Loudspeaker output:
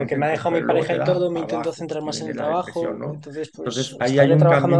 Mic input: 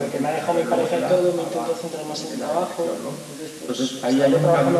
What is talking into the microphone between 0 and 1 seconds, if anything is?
echo only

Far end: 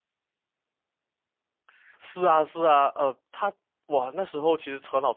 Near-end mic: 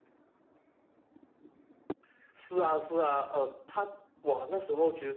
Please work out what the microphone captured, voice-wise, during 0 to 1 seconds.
neither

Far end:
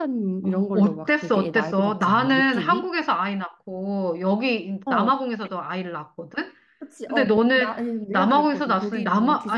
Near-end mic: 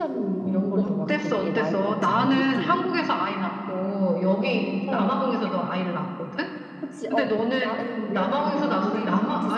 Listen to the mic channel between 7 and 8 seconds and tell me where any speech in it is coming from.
echo only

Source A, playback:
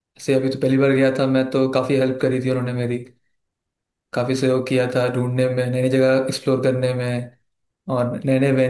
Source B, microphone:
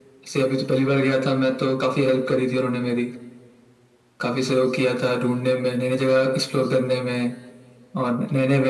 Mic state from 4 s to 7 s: echo only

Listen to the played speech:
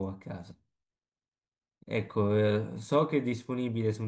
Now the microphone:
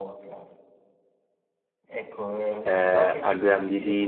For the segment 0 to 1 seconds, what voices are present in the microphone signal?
echo only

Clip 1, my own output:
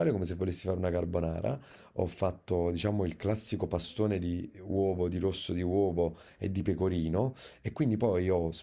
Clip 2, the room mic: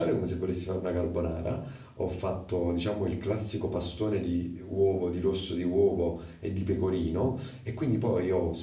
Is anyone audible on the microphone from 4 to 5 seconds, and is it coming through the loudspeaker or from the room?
echo only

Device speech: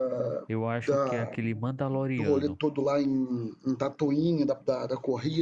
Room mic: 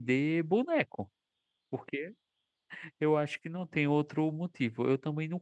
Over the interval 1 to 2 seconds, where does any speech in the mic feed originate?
user only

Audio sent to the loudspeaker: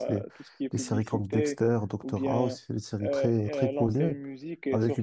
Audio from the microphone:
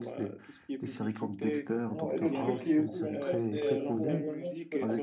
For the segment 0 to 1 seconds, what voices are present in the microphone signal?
echo only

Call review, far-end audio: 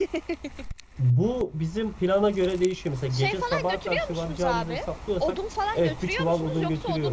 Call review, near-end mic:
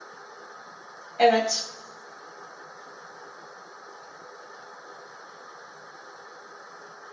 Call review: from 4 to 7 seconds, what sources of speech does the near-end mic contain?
neither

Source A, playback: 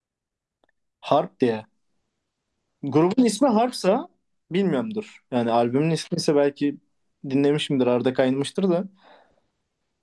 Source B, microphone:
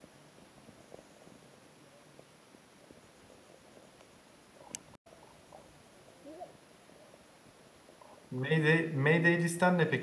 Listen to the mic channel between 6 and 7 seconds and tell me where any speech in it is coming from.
neither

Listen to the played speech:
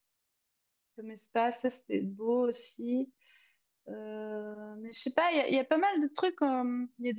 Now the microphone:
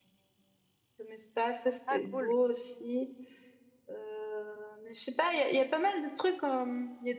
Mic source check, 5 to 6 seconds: echo only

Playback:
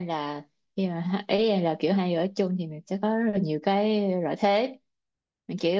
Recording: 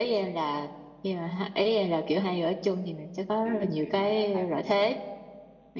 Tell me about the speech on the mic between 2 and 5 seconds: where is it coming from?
both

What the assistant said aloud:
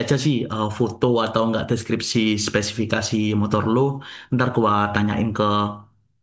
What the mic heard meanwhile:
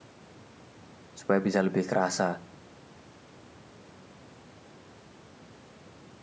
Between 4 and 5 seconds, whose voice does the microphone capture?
neither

